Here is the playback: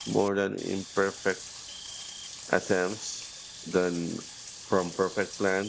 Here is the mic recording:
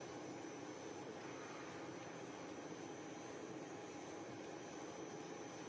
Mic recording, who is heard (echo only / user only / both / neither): neither